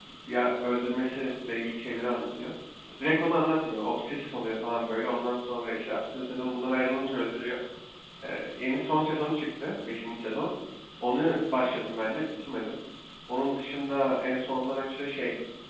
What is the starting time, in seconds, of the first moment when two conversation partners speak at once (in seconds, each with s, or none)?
none